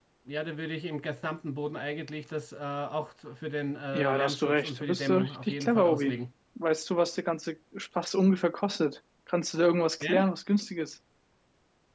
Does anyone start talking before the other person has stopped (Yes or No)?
Yes